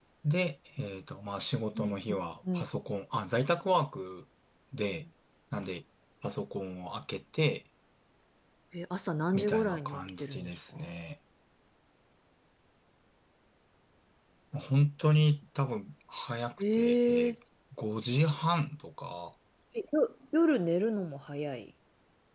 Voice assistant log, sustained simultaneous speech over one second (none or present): present